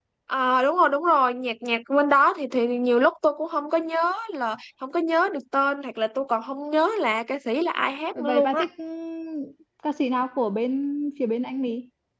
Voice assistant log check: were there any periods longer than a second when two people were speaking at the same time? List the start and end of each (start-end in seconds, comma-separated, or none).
none